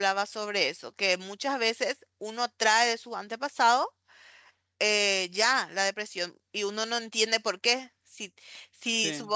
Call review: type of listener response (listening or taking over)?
listening